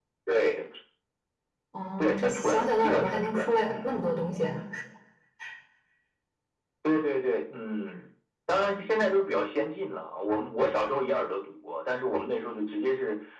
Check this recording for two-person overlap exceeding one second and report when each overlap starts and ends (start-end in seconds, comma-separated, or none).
2.0-3.9